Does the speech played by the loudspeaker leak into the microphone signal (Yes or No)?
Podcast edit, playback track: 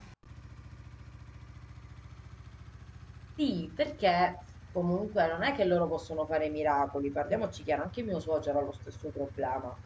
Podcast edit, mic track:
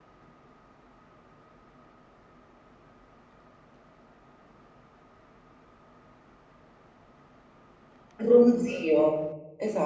No